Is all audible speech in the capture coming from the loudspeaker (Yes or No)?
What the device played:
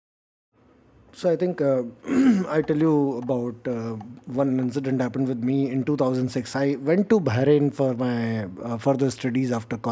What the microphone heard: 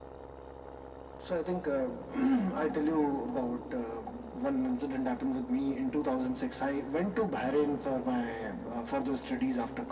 Yes